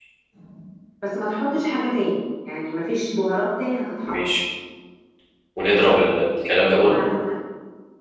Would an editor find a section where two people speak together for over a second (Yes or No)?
No